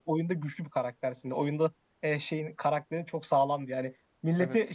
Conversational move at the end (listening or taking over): listening